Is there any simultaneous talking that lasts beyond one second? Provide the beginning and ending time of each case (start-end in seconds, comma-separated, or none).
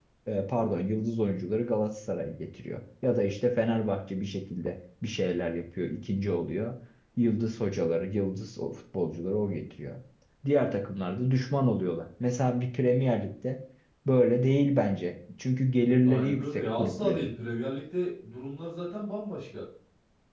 16.0-17.3